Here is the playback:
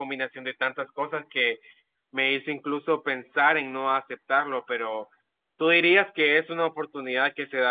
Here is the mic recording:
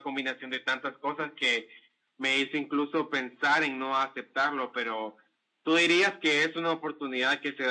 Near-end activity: none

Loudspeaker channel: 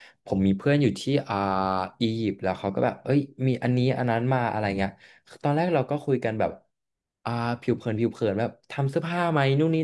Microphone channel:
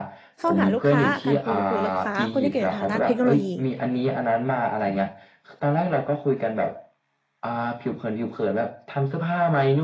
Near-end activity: present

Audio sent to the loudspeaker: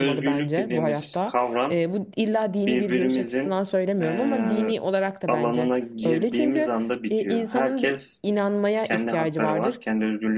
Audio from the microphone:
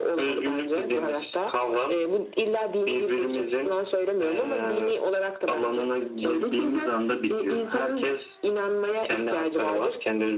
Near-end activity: none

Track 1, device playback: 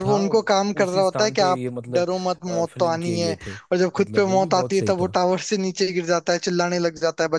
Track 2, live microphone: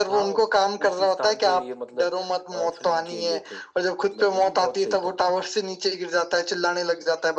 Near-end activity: none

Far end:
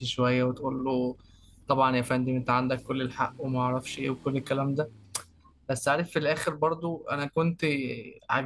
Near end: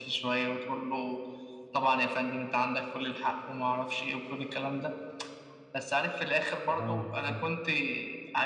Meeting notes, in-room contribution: present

